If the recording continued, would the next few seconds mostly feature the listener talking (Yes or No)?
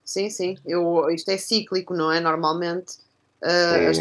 Yes